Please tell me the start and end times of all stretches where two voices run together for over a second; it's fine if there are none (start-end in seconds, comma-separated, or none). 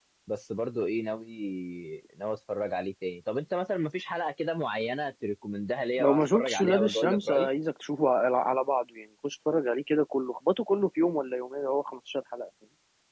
6.0-7.5